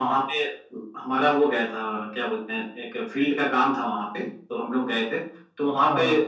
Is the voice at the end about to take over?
No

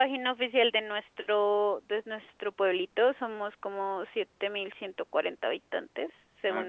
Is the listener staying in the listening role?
Yes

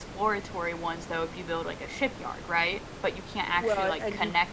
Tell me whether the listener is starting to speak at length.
Yes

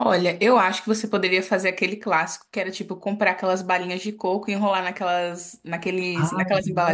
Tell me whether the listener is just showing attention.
No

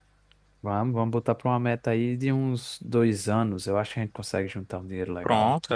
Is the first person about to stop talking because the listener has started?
Yes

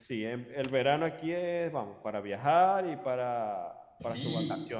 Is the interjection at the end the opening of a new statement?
Yes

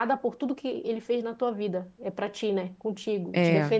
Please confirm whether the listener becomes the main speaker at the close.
No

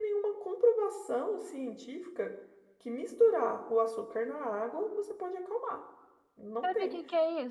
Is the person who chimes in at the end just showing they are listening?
No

